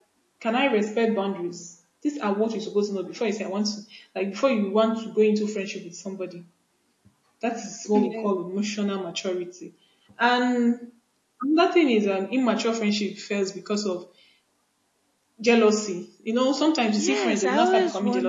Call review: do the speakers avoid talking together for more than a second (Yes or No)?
No